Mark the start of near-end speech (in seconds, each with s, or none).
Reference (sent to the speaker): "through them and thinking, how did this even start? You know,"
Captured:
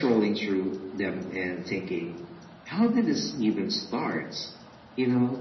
none